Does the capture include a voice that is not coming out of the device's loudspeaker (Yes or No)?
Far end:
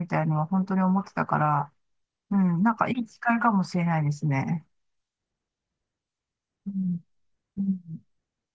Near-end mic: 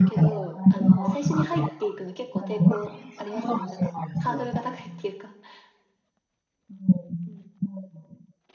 Yes